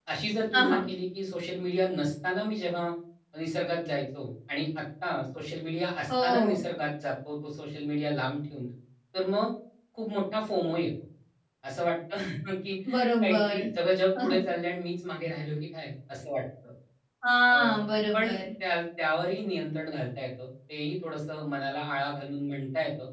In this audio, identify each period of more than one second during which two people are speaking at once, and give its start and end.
none

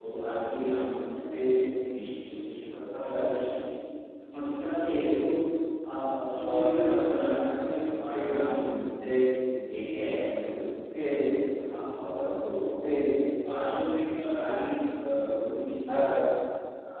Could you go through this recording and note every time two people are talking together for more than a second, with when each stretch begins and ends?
none

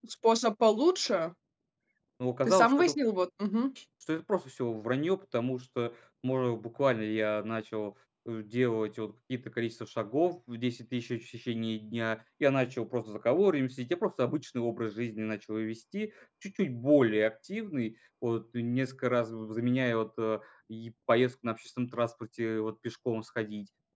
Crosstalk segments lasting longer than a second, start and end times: none

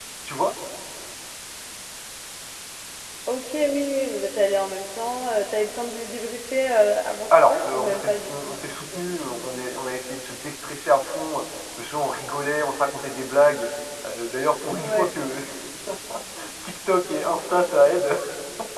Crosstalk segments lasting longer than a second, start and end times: 7.3-9.4

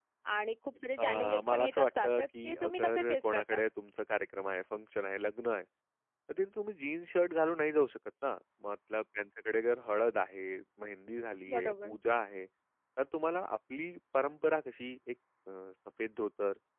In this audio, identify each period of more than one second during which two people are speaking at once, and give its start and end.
1.0-3.6

